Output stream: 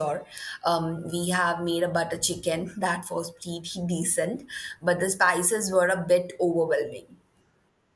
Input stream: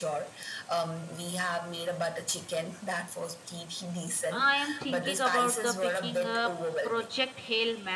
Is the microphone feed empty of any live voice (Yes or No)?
No